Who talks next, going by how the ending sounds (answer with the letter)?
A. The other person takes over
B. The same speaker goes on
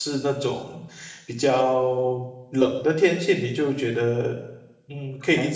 A